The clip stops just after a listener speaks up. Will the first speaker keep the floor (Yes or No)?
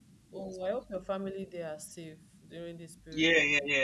No